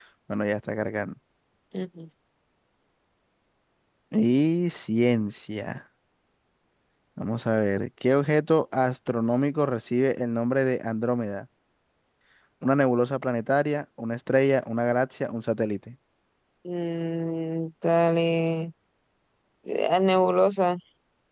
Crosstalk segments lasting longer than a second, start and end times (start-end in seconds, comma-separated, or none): none